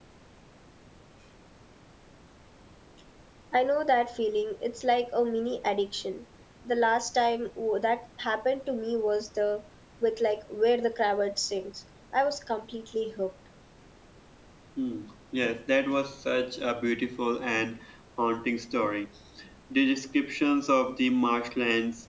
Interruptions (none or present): none